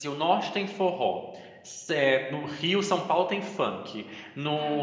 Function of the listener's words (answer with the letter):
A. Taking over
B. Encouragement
B